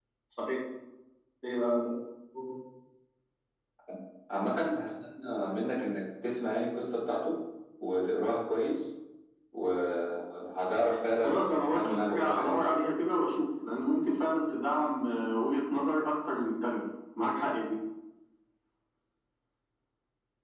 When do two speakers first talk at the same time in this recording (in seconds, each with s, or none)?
11.2 s